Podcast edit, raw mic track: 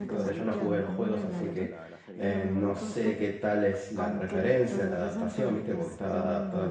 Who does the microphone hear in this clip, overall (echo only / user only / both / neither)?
both